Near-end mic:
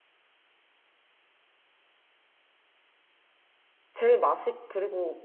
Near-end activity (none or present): present